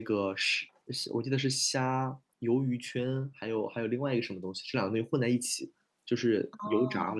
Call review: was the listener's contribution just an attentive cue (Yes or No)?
No